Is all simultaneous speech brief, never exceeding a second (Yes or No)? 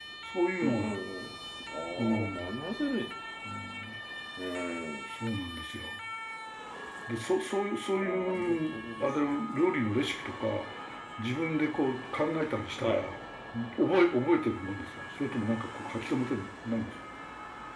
No